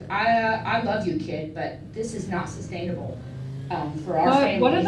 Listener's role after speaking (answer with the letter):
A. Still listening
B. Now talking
B